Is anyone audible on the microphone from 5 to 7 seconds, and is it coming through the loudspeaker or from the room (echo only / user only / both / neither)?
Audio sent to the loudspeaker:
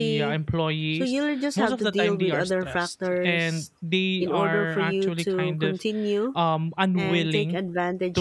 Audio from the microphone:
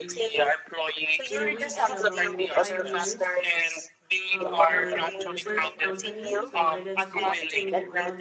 both